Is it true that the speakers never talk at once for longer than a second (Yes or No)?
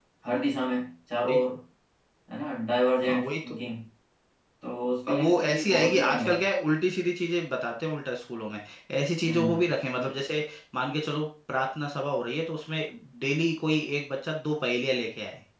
No